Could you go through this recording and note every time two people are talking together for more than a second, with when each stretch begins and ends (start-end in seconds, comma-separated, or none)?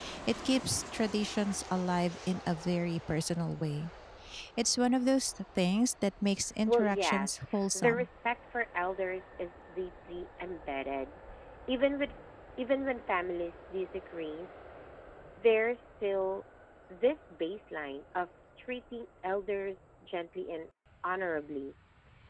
6.7-8.1